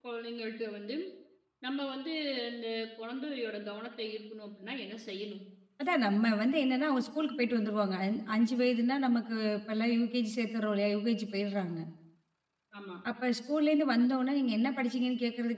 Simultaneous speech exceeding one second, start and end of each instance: none

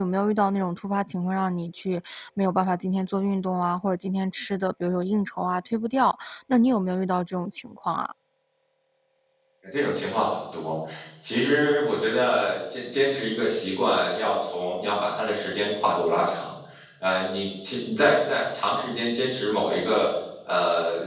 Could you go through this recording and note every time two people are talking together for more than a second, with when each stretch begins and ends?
none

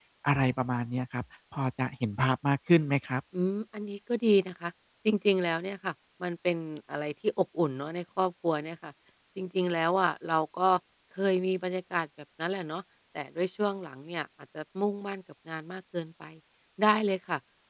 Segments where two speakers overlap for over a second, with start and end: none

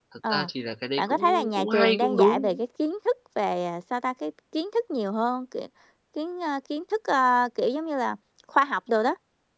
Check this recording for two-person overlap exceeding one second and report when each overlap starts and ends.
1.0-2.6

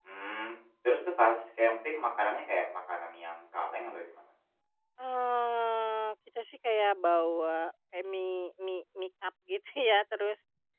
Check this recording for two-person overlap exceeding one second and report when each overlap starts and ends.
none

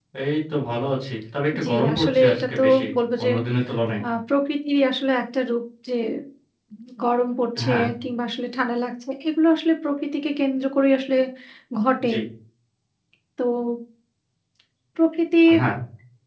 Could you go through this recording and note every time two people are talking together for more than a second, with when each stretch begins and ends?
1.6-2.9

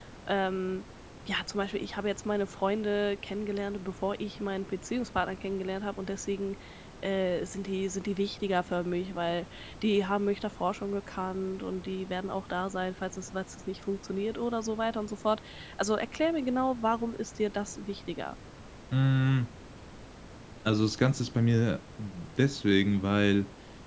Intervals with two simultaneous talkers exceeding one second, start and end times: none

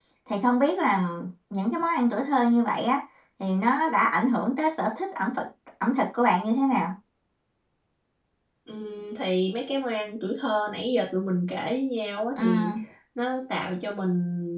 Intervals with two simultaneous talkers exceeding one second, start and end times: none

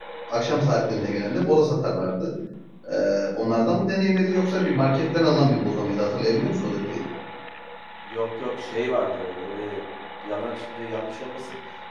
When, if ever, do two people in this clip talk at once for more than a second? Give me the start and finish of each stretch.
none

